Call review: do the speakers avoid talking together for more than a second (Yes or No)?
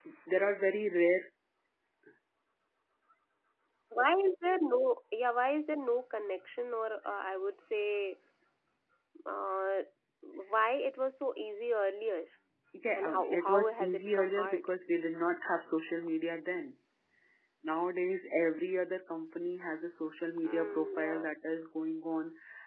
No